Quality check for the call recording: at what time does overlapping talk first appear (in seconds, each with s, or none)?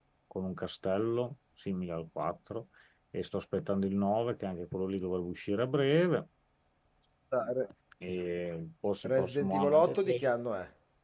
9.0 s